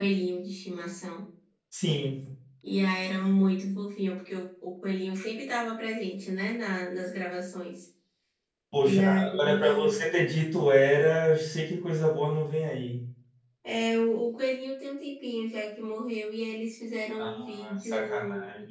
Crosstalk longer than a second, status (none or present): present